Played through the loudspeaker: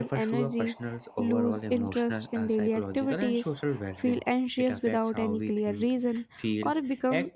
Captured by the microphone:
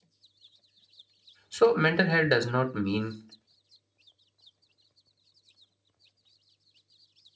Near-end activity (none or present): present